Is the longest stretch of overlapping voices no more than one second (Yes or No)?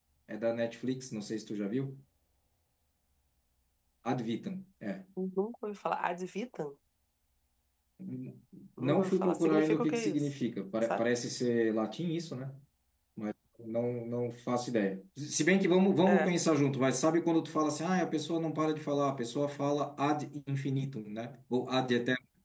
No